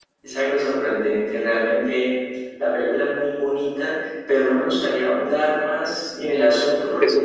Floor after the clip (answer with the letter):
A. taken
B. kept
A